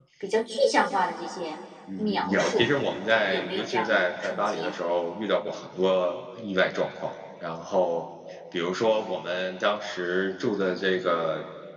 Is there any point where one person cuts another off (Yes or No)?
Yes